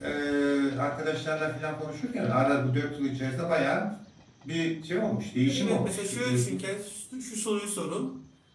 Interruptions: present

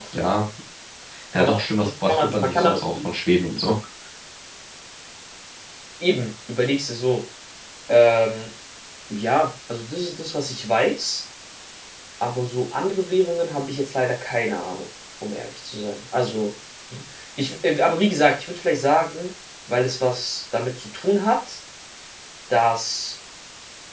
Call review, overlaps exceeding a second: present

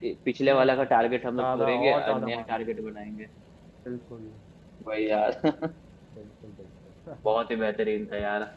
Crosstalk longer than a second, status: present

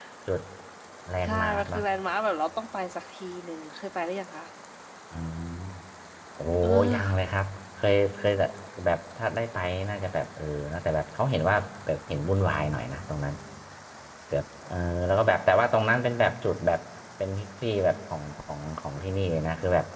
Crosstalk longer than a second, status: none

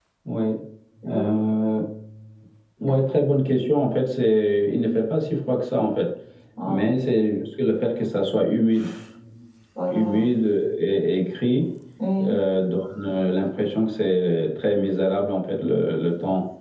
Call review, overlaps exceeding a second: none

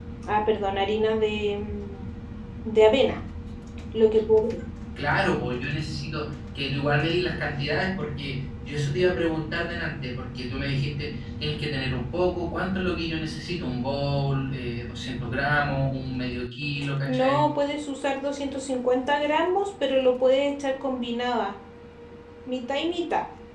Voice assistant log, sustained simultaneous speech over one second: none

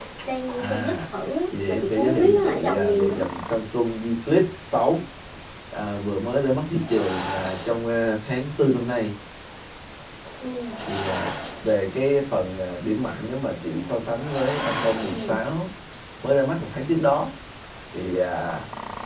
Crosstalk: present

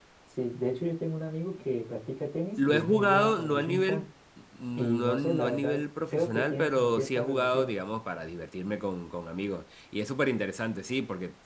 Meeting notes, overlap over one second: present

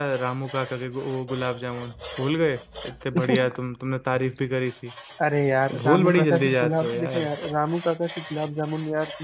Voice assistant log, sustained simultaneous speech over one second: present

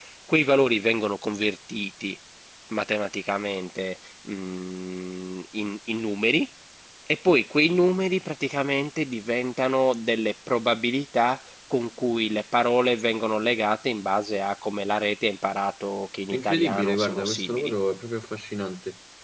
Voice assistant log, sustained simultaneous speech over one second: present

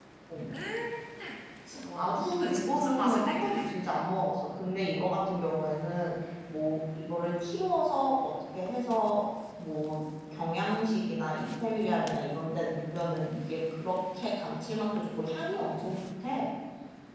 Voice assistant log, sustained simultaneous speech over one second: present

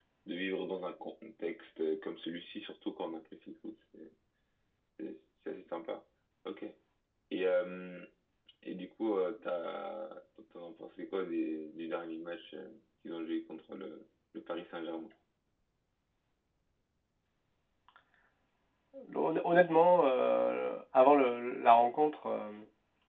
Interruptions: none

